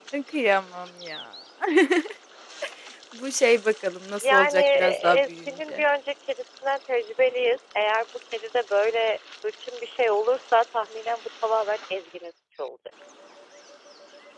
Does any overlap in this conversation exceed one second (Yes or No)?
Yes